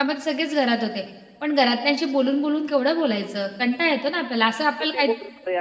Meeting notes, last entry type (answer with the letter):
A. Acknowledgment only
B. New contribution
B